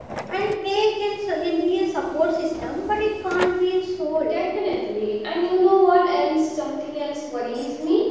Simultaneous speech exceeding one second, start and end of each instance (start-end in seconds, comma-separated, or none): none